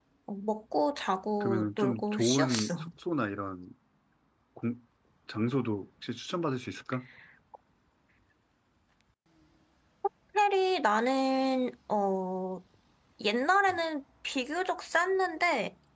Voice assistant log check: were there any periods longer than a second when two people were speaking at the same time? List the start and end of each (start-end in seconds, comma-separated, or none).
1.4-2.9